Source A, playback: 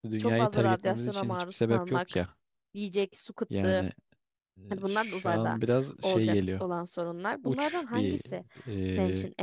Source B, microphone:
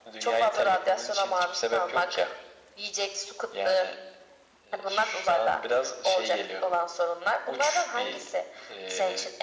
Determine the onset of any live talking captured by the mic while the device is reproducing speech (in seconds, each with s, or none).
none